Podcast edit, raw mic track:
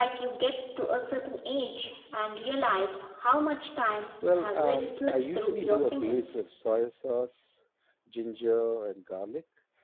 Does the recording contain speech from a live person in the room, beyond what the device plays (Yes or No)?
Yes